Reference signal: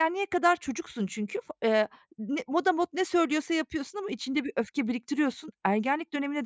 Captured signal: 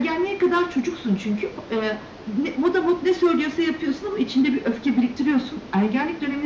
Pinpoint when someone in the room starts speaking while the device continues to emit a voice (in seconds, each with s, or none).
none